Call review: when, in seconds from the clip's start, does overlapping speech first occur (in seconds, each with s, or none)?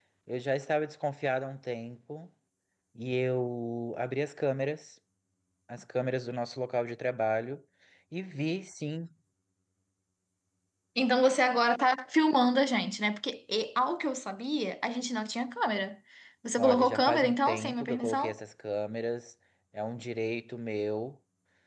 16.6 s